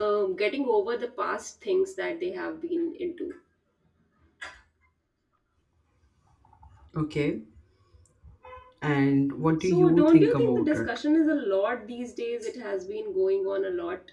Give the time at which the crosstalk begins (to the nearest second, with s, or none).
10 s